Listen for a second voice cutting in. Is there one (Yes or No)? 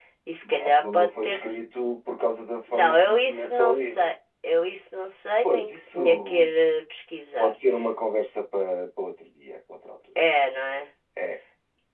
Yes